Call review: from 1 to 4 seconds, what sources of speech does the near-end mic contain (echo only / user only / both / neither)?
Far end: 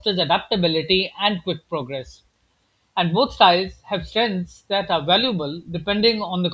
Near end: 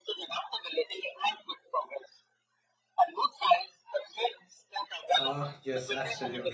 echo only